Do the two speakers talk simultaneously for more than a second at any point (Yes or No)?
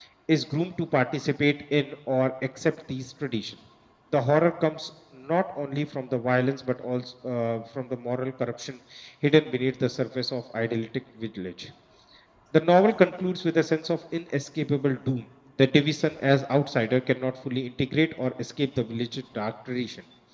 No